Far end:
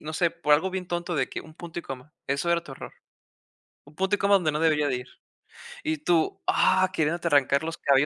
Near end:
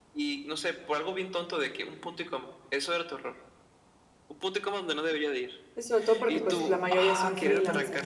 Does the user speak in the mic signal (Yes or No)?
Yes